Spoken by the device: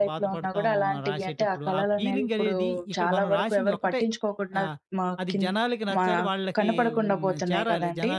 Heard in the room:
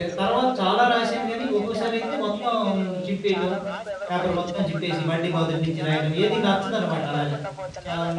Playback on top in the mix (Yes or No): No